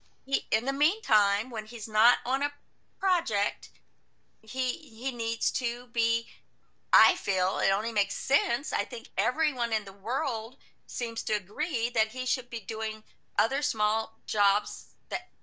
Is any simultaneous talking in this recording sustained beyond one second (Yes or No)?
No